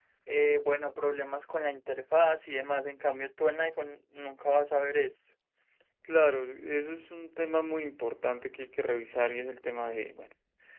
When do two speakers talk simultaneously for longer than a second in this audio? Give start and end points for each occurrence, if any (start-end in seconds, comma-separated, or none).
none